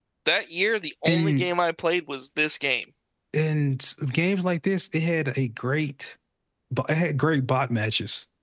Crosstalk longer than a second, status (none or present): none